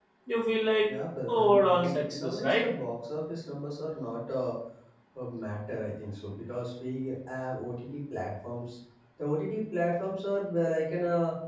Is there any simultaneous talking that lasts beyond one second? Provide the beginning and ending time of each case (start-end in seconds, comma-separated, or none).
1.3-2.6